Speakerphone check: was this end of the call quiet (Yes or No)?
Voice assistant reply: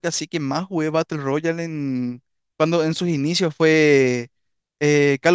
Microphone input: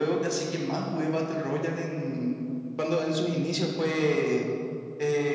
Yes